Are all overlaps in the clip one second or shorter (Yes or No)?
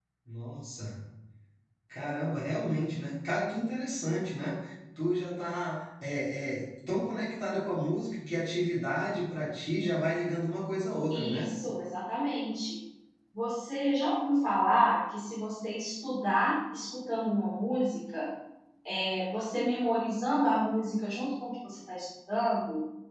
Yes